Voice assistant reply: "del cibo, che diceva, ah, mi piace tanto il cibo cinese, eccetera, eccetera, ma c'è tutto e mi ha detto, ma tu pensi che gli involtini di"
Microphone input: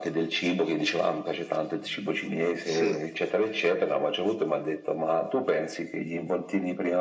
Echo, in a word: present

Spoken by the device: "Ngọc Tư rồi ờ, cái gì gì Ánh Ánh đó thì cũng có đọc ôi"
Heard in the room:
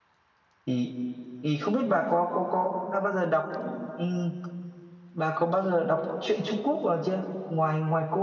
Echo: none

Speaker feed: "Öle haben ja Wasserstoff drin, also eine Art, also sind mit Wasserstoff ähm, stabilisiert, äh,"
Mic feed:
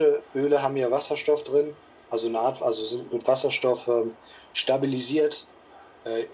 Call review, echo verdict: present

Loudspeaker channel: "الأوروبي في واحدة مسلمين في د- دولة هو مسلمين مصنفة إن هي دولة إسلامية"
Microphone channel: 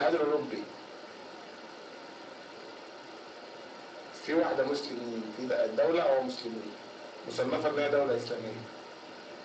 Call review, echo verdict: present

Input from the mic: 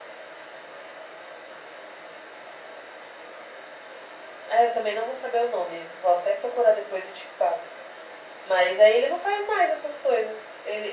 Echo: present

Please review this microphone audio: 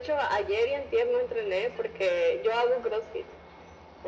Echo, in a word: present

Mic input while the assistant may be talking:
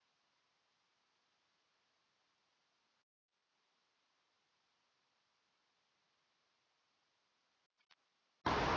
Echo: none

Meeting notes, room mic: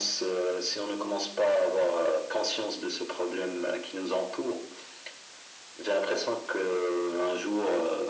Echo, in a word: present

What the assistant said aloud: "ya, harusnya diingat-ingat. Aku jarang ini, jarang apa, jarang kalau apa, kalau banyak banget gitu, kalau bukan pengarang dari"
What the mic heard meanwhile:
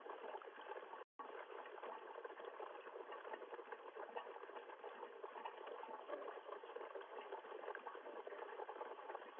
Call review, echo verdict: none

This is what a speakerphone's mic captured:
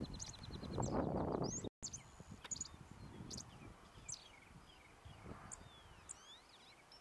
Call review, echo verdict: none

